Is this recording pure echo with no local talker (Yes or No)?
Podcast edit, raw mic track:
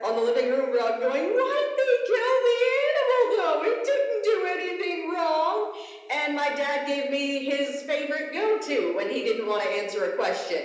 Yes